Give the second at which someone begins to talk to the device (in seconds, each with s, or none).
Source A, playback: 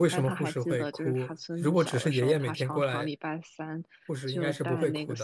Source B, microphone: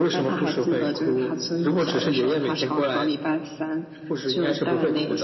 none